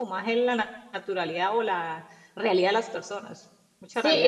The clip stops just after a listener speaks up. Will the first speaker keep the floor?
No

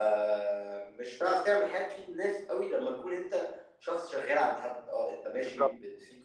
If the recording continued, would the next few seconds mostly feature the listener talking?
No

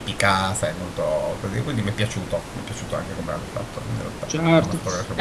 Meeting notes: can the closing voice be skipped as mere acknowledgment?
No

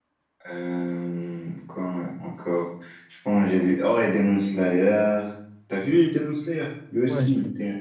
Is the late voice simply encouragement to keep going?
No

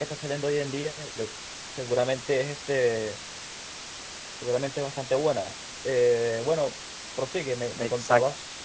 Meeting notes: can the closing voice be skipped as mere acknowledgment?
No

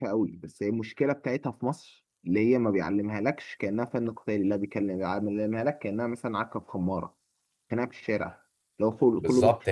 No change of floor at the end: No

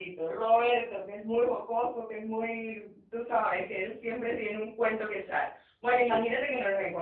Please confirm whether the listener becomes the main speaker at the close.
No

